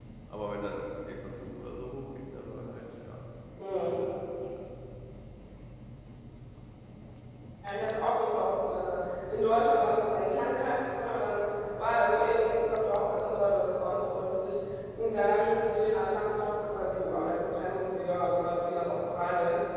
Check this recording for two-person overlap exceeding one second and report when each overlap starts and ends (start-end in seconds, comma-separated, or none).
none